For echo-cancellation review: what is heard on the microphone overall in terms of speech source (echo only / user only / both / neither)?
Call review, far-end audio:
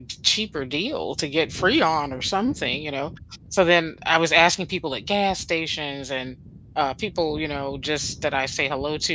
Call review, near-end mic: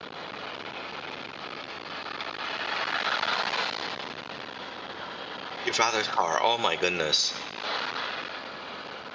user only